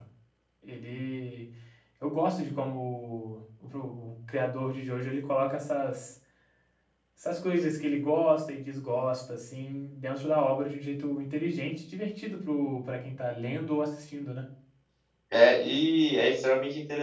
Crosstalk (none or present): none